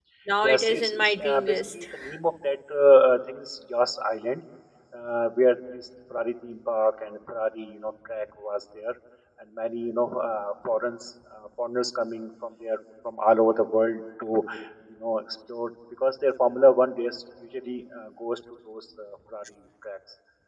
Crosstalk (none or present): present